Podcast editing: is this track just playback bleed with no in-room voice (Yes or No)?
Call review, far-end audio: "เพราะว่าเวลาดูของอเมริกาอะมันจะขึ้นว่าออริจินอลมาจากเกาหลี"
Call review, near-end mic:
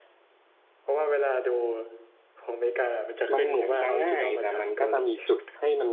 No